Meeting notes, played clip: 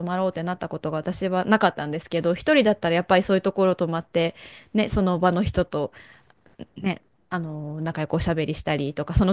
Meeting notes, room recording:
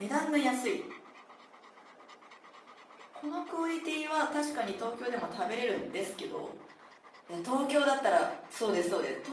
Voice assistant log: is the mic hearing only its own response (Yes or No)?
No